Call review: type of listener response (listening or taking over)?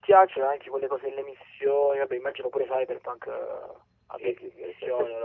taking over